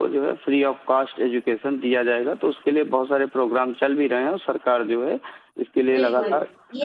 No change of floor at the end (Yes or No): No